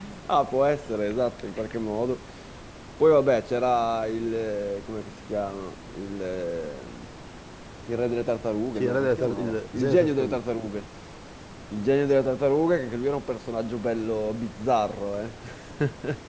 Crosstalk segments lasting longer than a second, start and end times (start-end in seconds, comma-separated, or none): 8.8-10.4